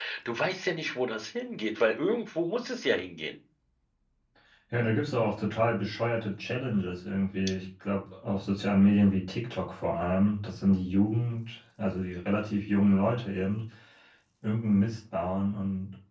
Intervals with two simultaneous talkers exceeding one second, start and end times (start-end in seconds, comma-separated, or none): none